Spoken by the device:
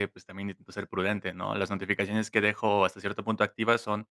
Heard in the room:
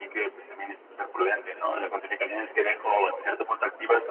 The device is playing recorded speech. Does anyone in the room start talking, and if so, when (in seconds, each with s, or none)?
none